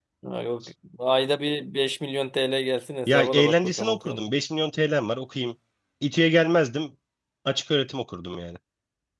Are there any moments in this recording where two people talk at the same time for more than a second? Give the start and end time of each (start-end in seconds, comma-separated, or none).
3.1-4.3